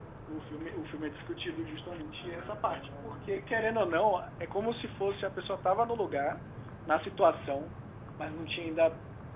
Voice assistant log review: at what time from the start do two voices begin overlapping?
2.2 s

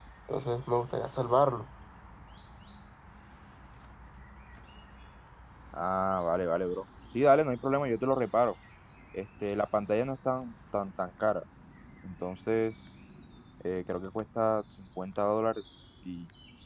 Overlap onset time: none

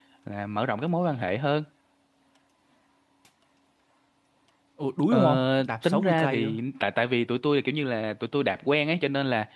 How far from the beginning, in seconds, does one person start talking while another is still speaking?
5.1 s

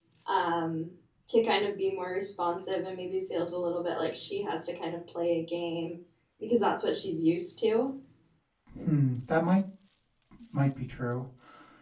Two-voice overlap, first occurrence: none

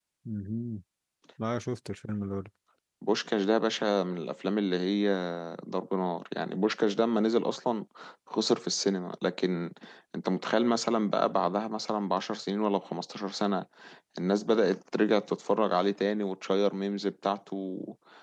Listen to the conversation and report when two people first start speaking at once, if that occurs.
none

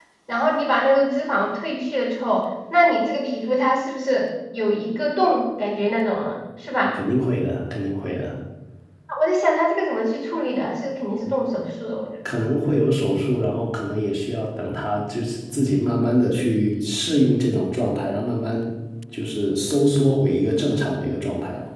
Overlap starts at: none

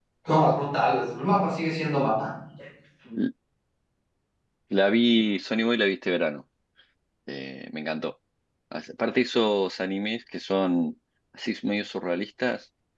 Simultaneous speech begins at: none

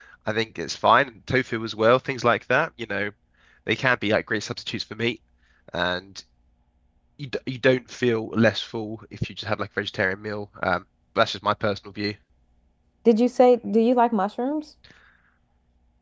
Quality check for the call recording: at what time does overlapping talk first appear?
none

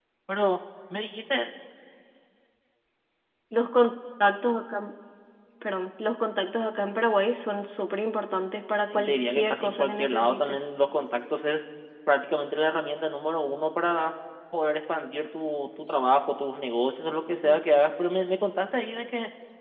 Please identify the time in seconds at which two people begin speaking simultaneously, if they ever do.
8.9 s

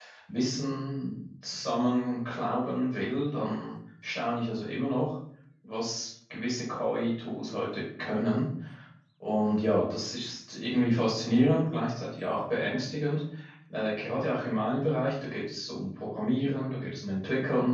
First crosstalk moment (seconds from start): none

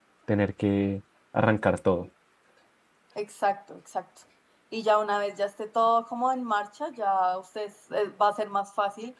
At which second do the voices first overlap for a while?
none

